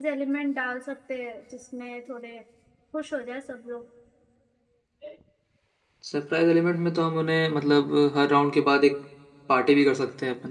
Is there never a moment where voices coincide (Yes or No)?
Yes